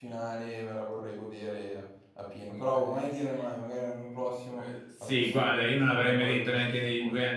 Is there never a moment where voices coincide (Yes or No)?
No